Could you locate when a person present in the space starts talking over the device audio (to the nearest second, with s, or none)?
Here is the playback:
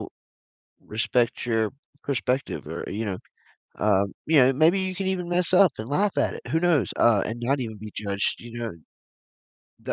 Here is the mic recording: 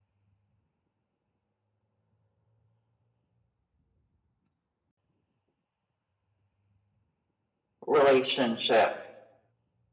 8 s